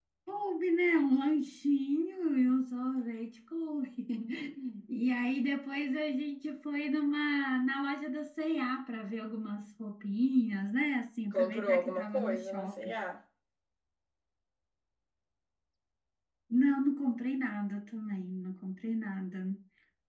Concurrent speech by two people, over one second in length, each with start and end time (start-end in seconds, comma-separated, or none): 11.3-12.9